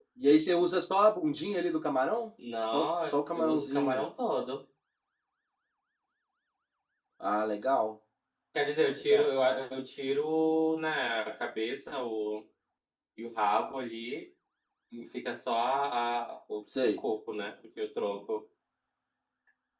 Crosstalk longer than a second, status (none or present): present